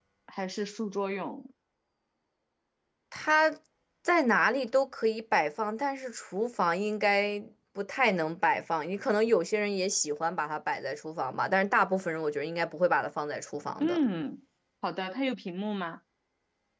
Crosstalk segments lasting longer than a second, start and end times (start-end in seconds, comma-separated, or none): none